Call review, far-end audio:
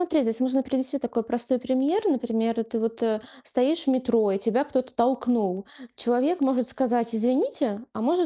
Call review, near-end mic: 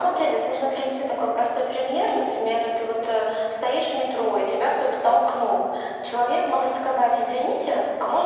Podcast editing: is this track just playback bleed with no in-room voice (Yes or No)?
Yes